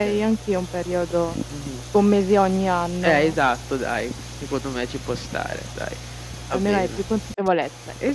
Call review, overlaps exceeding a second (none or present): none